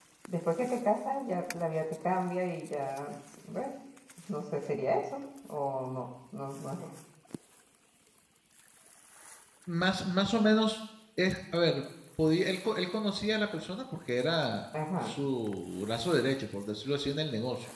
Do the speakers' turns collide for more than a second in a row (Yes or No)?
No